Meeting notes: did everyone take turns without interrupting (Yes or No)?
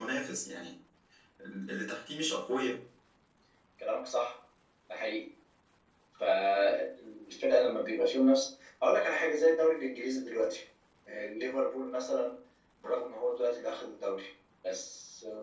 Yes